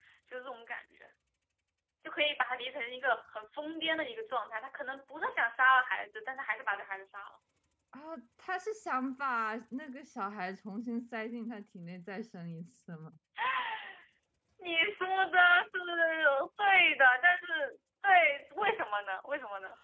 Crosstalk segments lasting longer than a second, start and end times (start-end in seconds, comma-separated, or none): none